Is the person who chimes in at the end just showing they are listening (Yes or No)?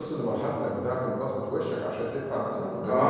No